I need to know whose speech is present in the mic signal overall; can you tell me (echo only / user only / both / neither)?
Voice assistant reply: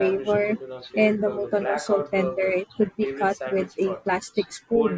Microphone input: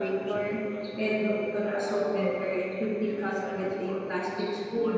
echo only